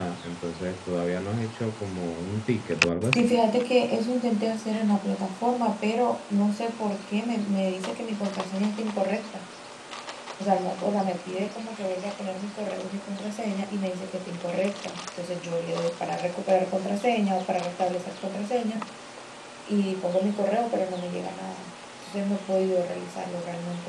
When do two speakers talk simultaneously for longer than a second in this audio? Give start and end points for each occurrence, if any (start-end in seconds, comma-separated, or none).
none